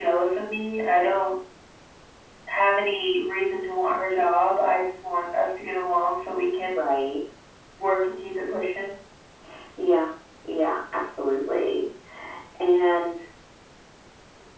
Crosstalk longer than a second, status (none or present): none